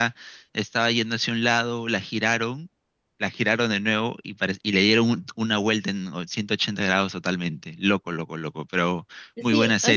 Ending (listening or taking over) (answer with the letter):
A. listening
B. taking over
B